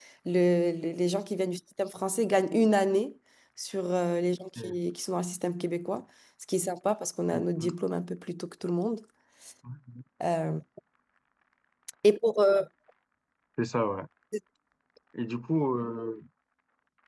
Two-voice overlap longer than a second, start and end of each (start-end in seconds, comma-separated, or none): none